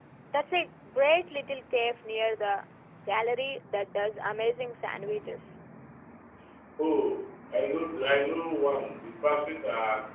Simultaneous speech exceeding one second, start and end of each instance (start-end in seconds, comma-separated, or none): none